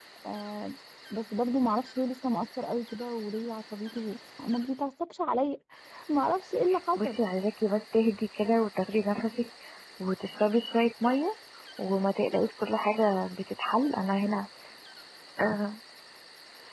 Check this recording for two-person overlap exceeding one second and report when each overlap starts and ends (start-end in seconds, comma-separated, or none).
none